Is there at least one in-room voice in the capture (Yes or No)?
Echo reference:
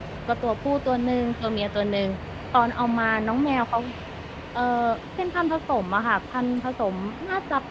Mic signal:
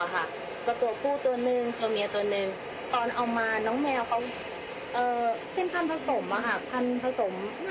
Yes